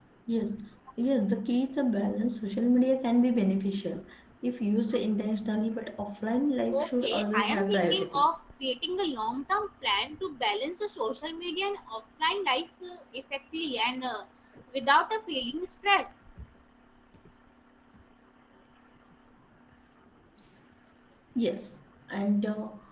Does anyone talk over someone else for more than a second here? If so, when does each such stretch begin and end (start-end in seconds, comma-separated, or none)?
6.8-8.2